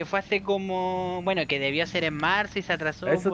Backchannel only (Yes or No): No